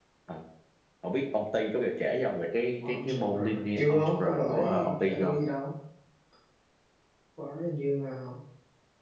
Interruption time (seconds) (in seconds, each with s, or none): 2.8 s